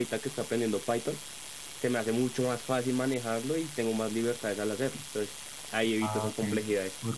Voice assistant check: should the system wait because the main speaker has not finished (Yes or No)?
No